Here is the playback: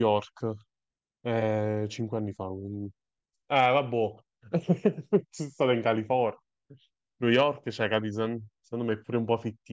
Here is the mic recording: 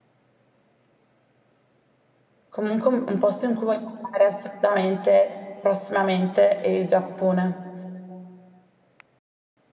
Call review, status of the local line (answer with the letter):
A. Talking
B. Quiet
A